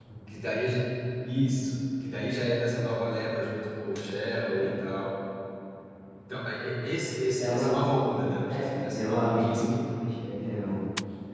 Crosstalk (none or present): present